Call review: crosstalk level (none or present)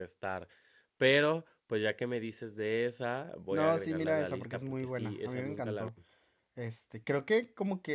present